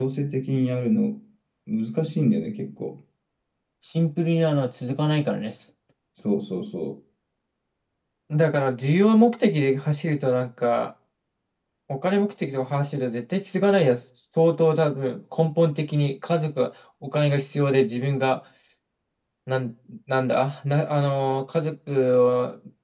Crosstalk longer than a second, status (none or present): none